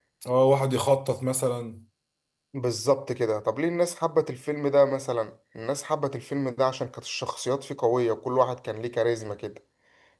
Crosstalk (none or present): none